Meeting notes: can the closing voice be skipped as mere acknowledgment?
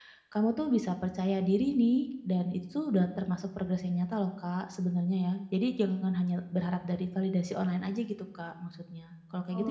No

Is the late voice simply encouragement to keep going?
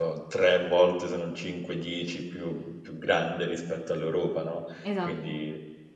Yes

